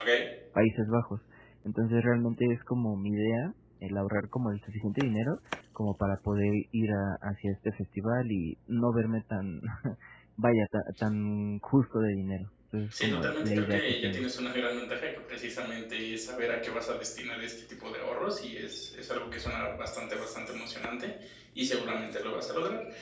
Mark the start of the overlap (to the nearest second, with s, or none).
13 s